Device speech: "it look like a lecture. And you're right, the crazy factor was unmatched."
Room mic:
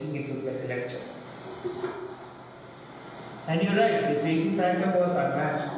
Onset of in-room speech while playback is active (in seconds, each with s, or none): none